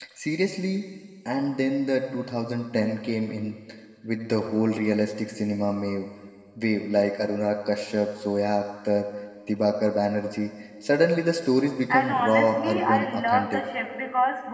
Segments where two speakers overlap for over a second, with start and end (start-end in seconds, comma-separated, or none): 11.9-13.6